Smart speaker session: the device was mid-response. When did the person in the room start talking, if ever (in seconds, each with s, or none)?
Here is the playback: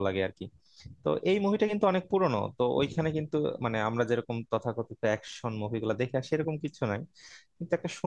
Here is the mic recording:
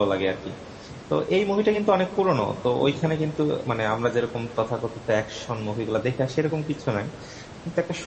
none